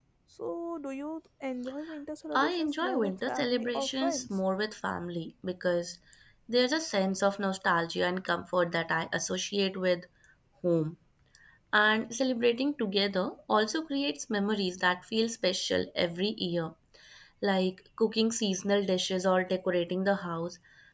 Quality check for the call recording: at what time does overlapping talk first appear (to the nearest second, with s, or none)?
2 s